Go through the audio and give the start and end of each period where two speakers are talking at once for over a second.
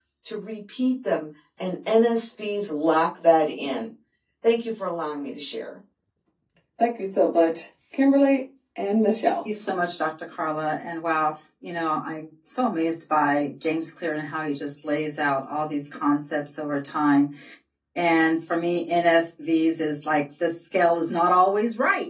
none

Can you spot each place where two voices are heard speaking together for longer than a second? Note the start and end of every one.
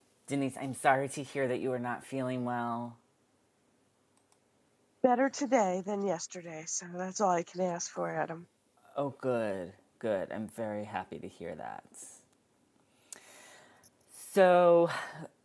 none

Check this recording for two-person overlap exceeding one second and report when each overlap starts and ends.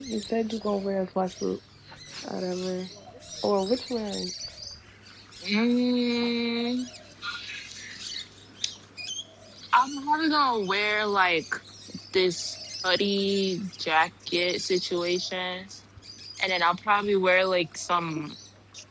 none

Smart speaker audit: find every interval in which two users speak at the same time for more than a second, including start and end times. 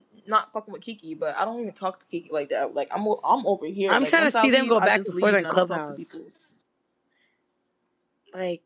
3.9-6.0

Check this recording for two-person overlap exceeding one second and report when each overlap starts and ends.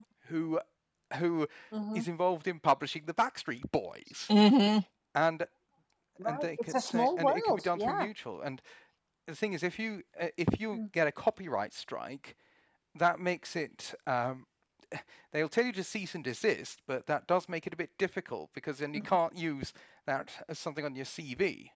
6.2-8.1

